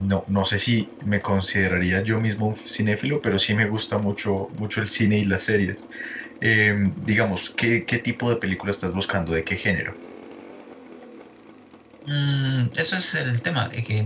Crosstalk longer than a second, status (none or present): none